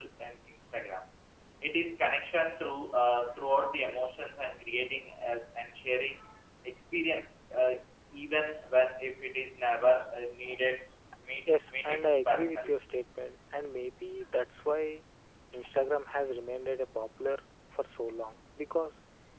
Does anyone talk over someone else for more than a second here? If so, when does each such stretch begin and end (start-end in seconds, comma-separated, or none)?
11.4-12.7